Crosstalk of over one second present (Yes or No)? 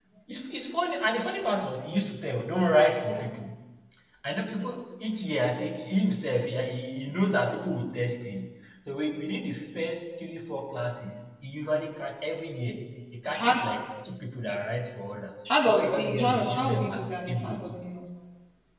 Yes